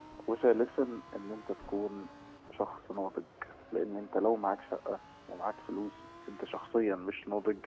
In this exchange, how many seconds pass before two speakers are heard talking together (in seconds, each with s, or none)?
none